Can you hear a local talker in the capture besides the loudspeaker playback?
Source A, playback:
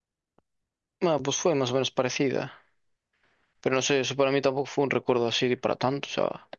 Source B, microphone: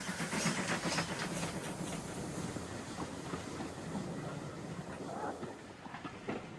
No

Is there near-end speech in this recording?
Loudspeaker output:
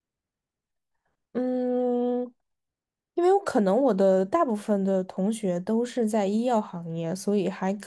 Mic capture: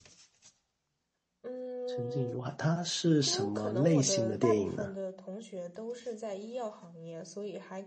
Yes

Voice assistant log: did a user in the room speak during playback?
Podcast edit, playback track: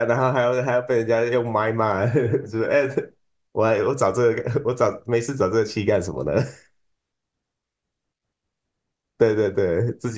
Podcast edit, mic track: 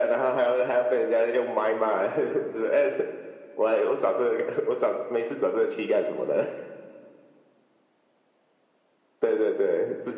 No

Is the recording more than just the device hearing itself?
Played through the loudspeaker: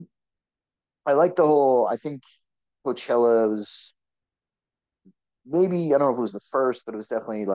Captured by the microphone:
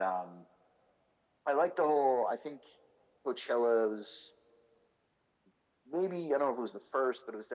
No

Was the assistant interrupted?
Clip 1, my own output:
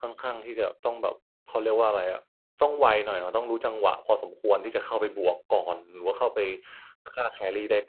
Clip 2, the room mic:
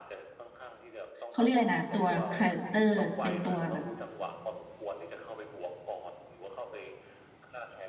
Yes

